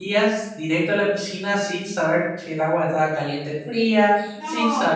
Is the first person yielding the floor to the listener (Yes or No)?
Yes